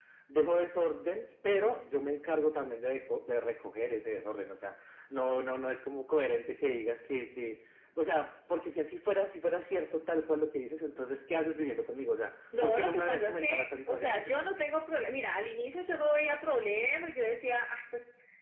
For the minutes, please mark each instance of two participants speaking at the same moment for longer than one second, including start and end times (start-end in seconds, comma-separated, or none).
12.6-14.3